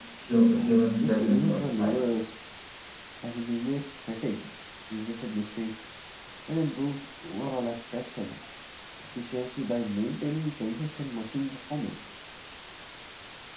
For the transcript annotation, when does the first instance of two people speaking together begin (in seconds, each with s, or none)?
0.5 s